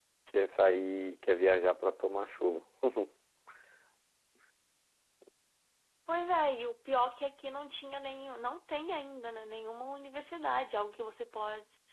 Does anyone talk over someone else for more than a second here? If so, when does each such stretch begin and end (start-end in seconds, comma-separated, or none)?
none